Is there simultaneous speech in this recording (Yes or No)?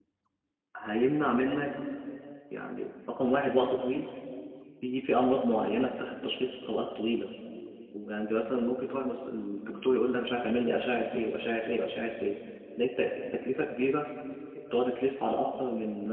No